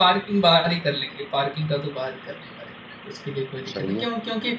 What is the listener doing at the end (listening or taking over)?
listening